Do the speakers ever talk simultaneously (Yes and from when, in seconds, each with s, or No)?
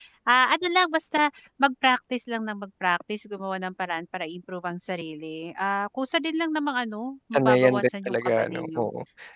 Yes, from 7.3 s